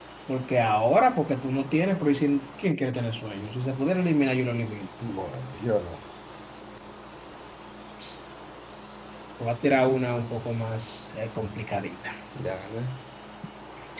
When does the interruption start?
none

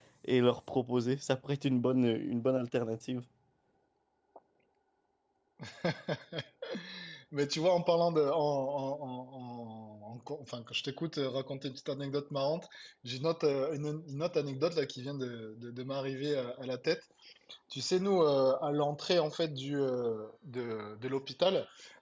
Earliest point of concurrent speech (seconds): none

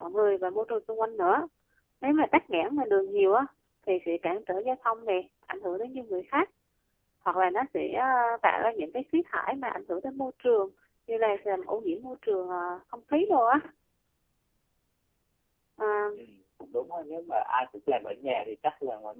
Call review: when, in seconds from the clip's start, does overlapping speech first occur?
none

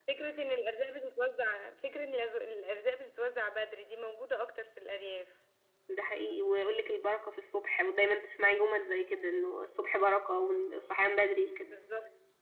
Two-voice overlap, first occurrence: none

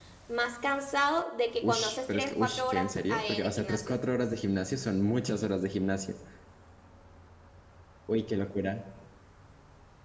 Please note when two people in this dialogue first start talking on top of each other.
1.6 s

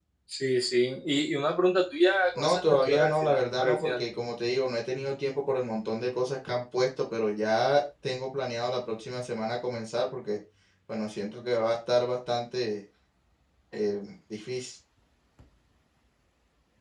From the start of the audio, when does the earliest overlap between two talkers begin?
2.4 s

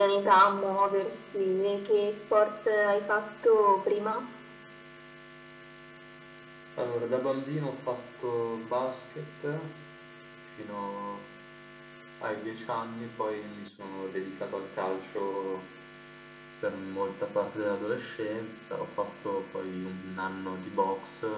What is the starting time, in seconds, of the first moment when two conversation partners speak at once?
none

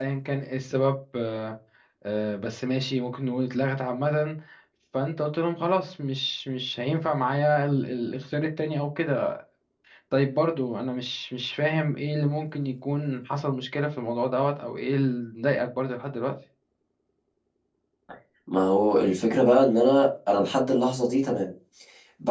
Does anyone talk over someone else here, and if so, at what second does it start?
none

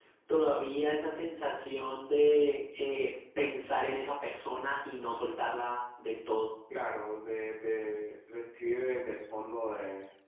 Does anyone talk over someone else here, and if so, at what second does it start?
none

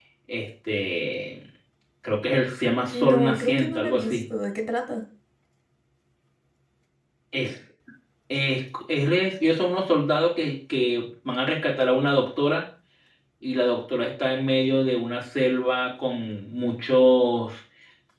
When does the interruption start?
2.9 s

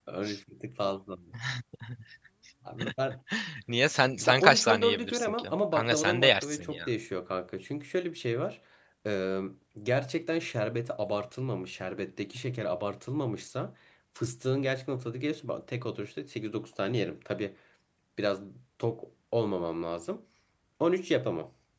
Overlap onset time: 4.2 s

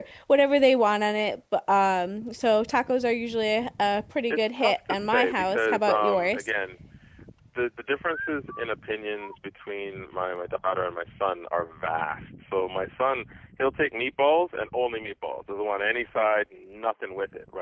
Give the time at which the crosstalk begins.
4.3 s

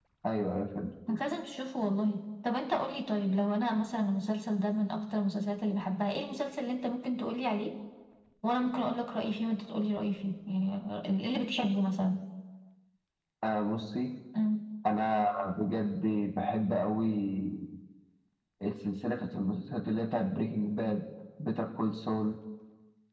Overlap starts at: none

